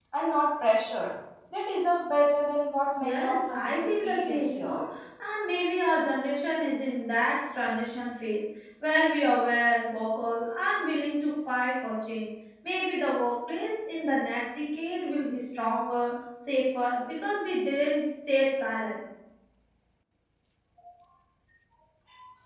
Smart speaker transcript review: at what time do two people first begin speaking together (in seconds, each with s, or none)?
3.0 s